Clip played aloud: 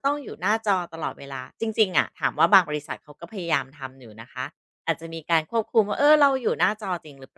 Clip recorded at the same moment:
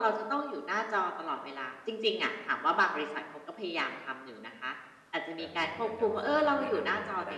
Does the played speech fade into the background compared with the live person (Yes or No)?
No